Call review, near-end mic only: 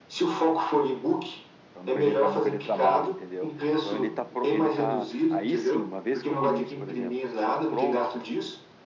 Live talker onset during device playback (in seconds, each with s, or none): 1.7 s